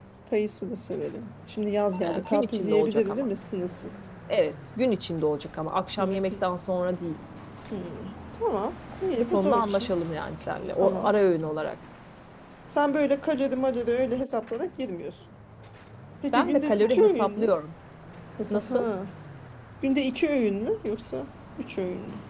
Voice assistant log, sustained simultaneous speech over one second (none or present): present